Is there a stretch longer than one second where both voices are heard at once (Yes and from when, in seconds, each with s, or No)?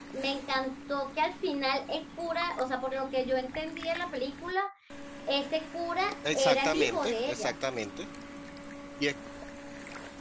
Yes, from 6.2 s